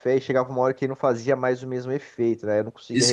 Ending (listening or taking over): taking over